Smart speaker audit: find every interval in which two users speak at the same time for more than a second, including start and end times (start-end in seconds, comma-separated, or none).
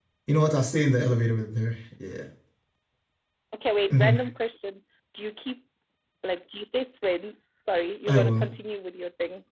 none